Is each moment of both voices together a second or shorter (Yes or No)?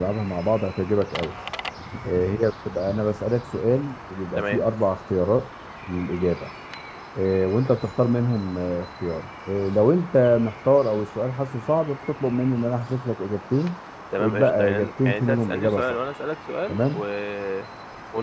No